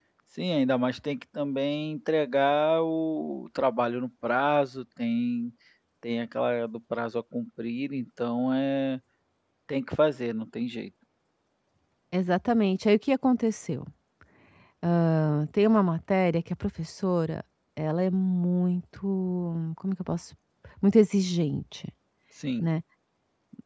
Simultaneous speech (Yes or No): No